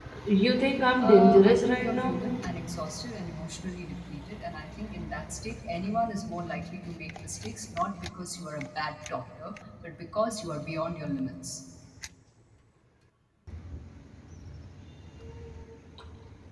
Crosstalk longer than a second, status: present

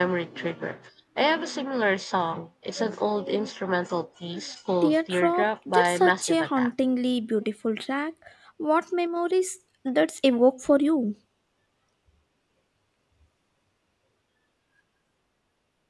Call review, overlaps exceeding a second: present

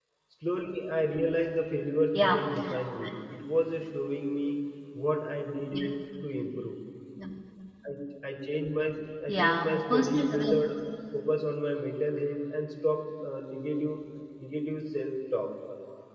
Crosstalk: present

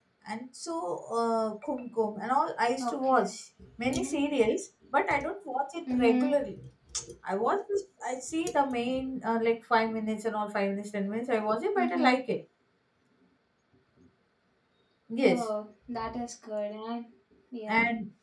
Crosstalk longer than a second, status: none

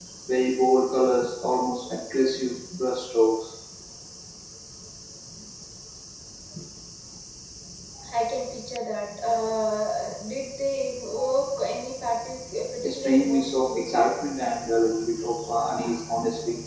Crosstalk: present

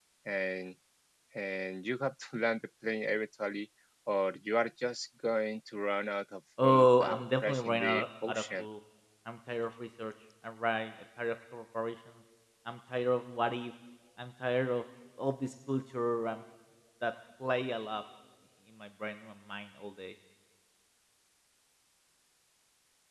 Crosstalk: present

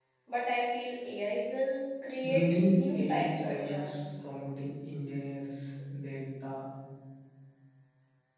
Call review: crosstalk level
present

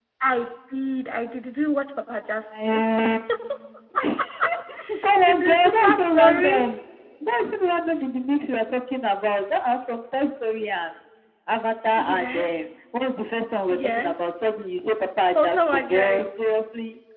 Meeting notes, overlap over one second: present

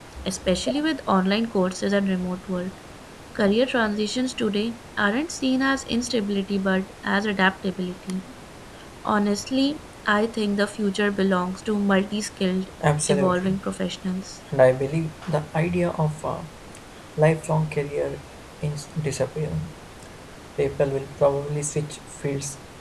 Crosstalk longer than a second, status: none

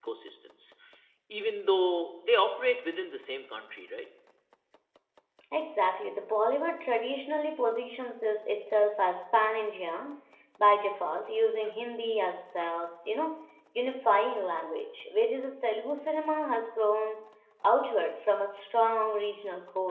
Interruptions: none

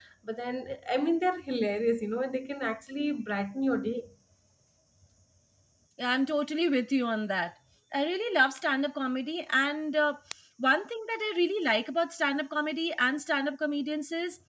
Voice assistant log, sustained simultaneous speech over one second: none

